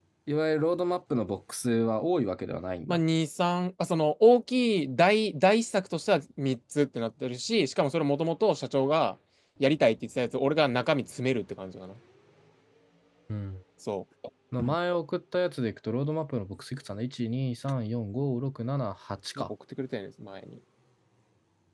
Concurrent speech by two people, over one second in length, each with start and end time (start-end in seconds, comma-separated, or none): none